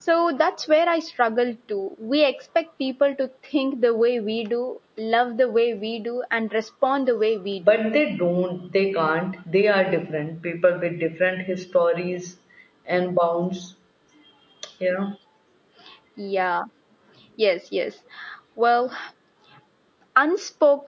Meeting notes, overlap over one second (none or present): none